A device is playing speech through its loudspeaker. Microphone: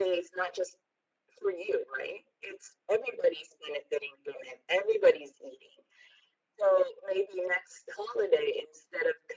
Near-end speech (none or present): none